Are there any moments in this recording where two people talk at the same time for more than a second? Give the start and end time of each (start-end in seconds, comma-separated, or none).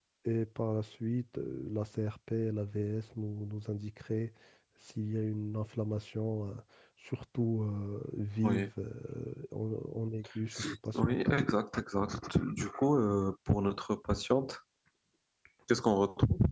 none